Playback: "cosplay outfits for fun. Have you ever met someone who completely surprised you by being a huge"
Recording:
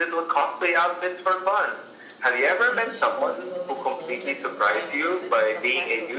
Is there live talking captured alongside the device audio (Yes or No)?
Yes